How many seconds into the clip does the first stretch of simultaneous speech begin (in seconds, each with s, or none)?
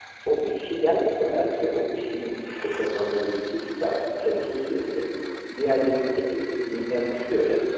none